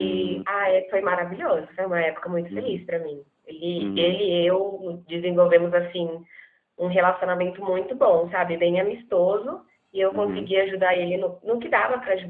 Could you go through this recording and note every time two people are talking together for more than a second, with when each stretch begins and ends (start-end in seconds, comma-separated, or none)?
none